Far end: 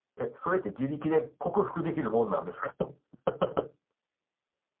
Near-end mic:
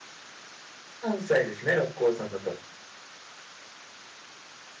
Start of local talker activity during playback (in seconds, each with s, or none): 1.0 s